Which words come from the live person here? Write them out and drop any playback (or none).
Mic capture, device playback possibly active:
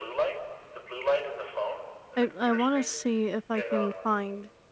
I I wanna see if I can find